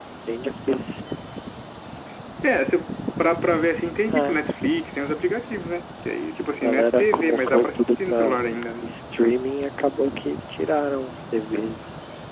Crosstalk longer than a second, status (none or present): present